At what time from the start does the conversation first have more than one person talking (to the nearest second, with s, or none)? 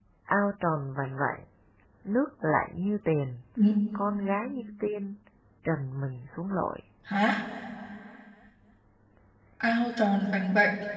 none